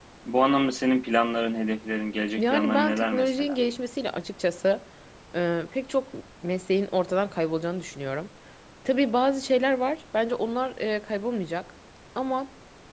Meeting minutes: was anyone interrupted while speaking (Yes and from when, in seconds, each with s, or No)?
Yes, from 2.4 s